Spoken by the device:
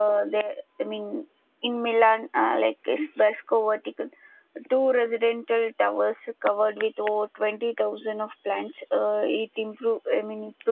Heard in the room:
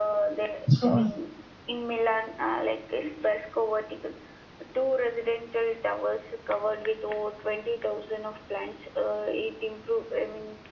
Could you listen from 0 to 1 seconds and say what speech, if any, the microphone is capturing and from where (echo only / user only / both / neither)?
both